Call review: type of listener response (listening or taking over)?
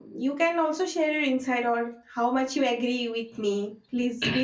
taking over